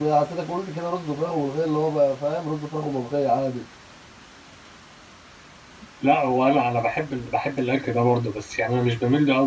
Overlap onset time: none

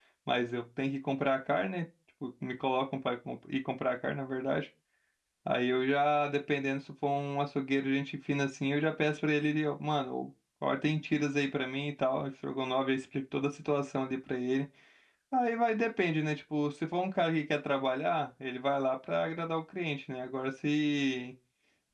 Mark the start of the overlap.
none

